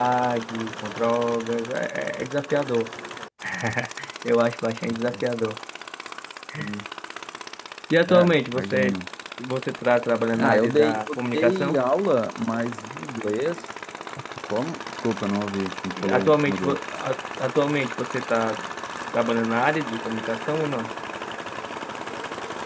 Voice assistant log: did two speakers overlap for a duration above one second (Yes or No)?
Yes